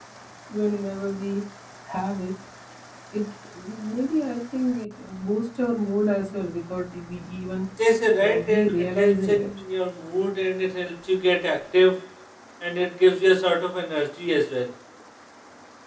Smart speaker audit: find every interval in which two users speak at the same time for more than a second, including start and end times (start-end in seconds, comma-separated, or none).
8.2-9.5